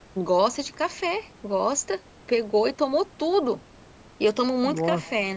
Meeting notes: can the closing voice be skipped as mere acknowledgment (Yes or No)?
Yes